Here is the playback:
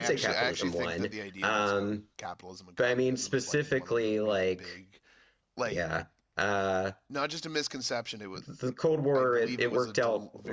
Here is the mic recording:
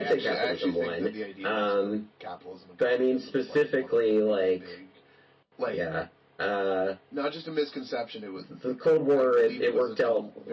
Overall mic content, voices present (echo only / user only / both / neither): echo only